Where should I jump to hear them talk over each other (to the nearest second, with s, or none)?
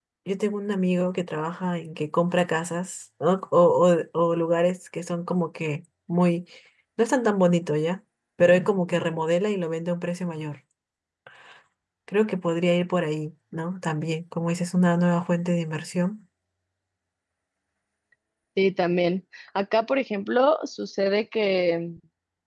none